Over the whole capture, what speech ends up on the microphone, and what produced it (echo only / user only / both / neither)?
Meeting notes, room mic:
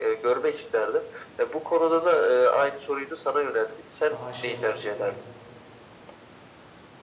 both